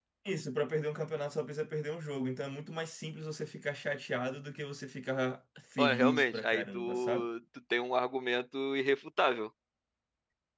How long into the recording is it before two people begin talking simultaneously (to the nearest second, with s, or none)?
6 s